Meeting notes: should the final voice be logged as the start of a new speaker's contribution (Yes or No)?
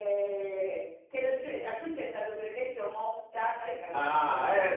Yes